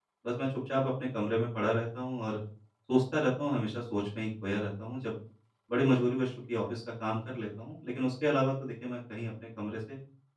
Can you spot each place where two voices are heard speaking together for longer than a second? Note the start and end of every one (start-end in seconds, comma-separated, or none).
none